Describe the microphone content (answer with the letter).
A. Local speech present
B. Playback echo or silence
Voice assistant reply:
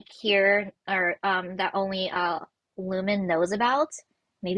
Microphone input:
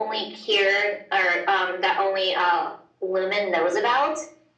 B